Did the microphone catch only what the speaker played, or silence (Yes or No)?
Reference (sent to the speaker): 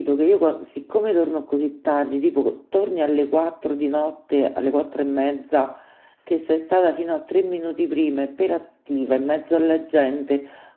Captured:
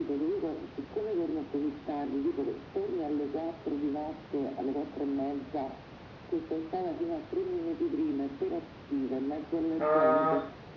No